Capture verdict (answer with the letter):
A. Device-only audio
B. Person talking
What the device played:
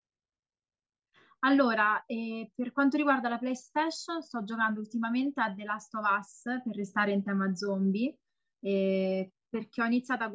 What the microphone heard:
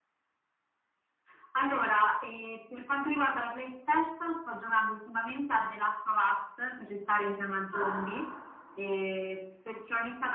B